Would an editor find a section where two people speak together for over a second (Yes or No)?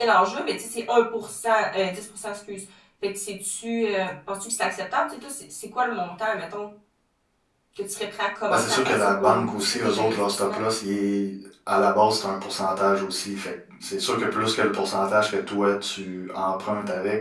Yes